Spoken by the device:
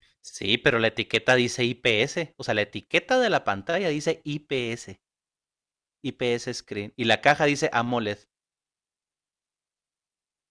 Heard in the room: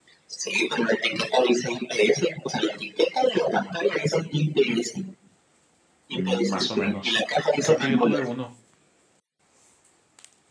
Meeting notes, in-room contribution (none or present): present